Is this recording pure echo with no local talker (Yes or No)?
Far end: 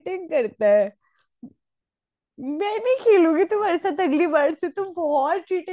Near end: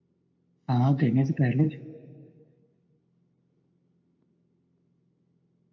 No